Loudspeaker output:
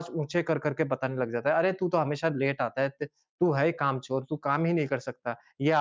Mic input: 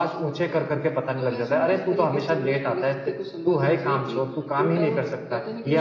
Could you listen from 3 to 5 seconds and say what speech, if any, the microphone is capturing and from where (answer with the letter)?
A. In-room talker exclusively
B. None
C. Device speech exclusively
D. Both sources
D